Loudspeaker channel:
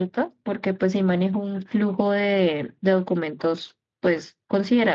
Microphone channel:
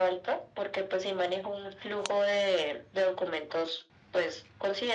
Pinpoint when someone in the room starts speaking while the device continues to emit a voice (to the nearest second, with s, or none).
none